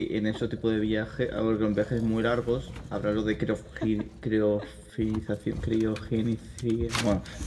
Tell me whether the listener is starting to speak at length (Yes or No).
Yes